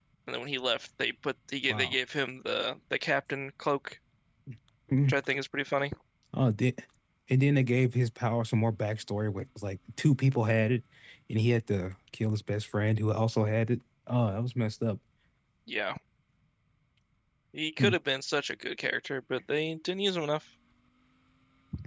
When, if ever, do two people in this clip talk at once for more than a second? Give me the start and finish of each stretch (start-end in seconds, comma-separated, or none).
none